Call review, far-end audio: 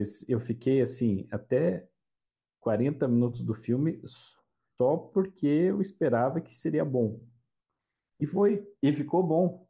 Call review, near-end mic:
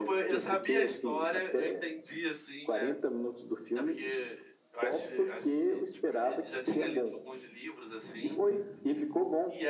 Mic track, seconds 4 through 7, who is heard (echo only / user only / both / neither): both